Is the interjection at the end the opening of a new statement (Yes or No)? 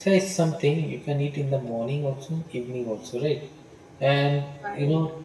No